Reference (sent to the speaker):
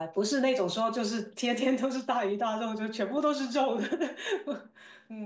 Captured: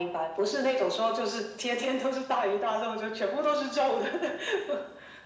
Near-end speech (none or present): none